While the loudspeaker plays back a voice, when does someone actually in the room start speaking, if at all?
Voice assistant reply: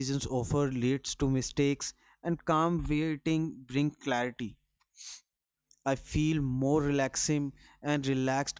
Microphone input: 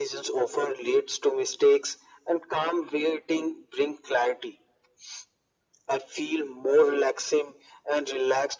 none

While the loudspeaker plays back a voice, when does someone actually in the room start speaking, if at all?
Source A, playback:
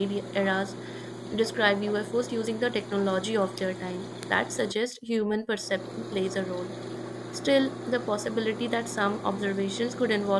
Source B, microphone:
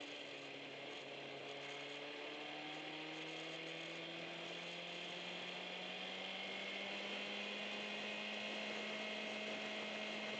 none

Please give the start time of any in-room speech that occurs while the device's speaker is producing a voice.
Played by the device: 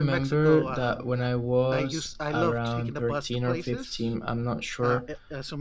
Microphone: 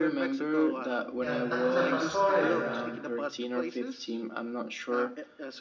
1 s

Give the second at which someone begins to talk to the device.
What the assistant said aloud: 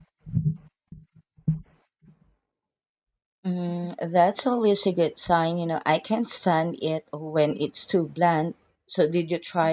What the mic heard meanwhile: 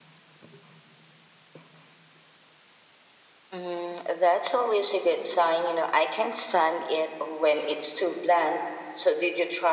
none

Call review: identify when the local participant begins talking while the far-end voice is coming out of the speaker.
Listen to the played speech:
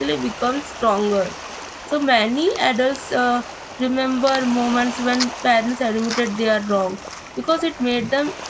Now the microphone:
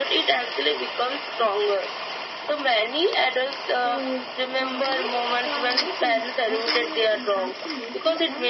4 s

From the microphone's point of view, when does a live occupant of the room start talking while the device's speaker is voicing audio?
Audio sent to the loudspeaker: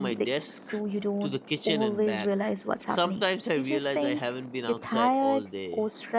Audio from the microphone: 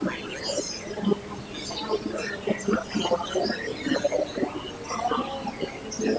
none

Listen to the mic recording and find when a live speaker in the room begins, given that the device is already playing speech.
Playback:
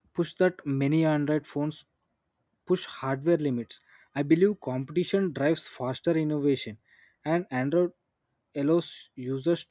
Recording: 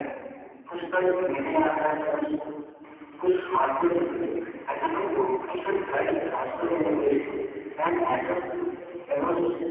none

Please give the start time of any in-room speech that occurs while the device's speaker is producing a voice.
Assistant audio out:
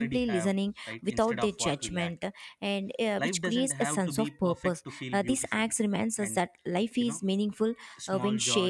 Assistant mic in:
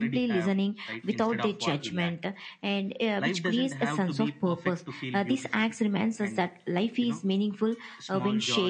none

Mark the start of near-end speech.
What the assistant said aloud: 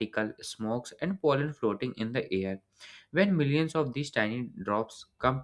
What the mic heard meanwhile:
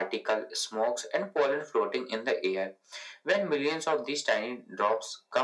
none

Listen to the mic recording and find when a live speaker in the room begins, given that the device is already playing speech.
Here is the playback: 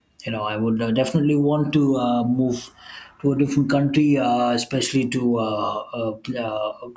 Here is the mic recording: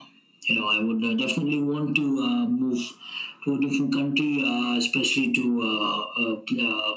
none

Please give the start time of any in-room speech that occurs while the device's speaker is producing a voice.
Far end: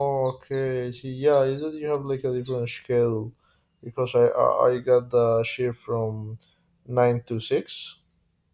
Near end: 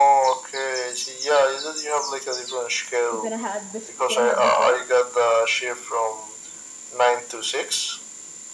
3 s

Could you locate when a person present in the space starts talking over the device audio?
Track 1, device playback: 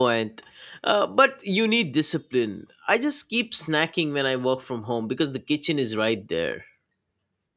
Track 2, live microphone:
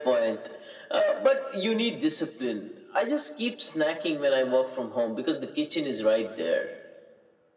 none

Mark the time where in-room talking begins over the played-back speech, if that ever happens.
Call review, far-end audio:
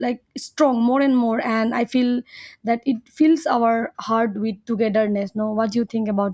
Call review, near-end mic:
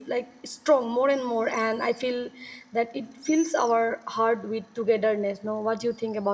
none

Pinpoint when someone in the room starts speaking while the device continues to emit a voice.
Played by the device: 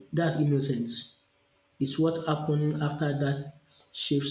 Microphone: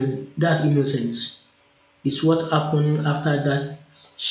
none

